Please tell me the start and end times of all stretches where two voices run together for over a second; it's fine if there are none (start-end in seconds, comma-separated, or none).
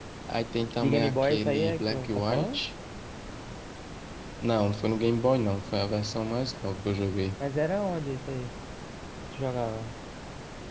0.8-2.6